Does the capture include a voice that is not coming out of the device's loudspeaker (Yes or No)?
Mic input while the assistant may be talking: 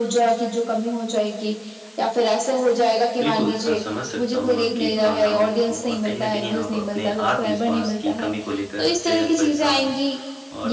Yes